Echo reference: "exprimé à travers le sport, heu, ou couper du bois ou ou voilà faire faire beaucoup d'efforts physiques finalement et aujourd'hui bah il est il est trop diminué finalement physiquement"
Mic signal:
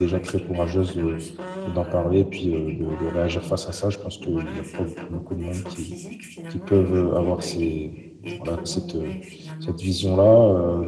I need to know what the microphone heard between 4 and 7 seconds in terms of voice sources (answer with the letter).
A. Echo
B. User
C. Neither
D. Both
D